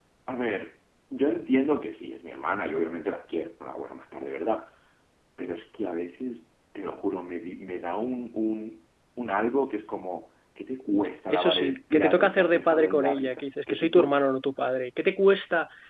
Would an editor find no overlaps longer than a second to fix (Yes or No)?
No